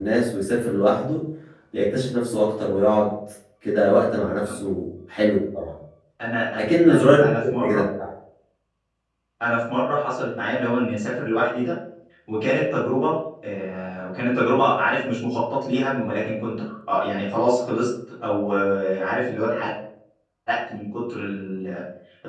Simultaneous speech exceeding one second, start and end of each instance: 6.5-7.8

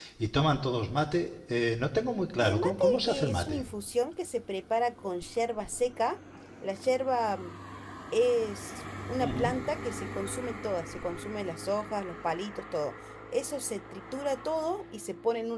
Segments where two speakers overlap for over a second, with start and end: 2.4-3.6

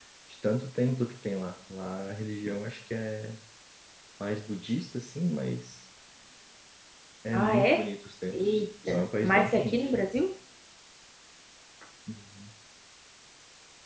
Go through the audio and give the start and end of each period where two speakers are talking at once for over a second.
8.3-9.9

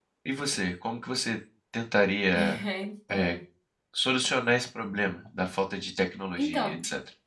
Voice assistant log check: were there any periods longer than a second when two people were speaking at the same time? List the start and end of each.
none

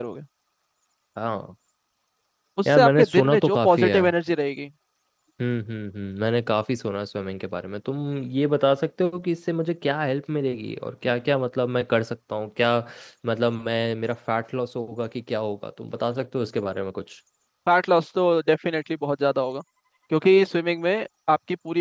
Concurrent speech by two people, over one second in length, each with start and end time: 2.7-4.0

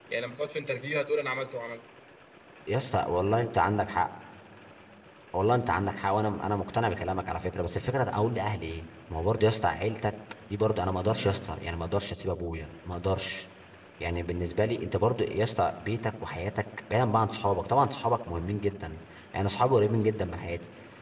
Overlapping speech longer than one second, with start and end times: none

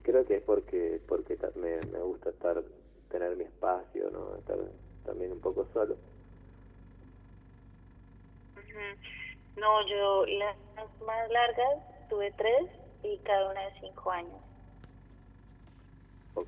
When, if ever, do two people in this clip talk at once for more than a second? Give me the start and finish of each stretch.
none

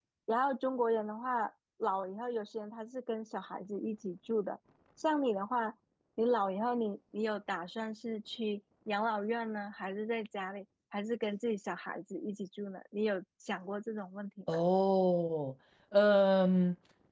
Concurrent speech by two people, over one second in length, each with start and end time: none

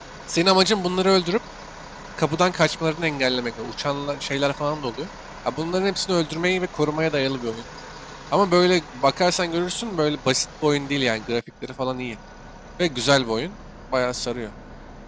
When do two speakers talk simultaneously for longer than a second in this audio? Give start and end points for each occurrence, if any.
none

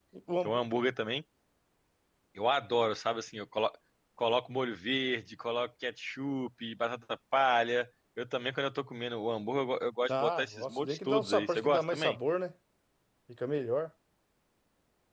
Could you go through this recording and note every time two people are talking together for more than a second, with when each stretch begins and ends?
10.1-12.2

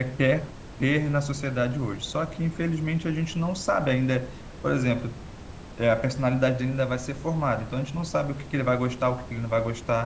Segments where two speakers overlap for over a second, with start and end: none

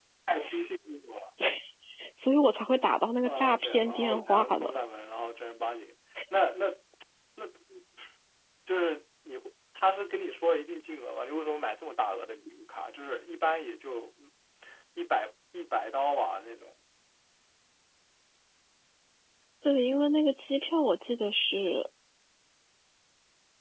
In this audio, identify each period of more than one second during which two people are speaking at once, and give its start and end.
3.2-4.8

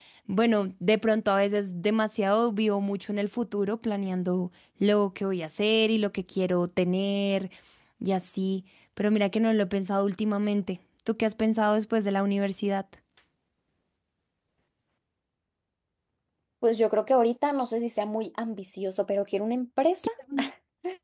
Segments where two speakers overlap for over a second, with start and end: none

